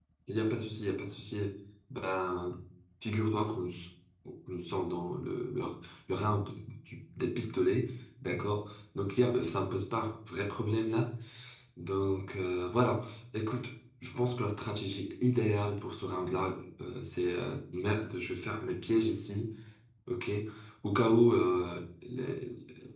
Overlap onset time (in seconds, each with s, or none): none